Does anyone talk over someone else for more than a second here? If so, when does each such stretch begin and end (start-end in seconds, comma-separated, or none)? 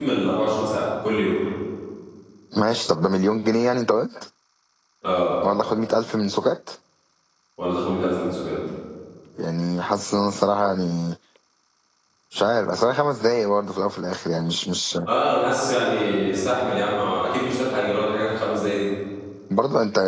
none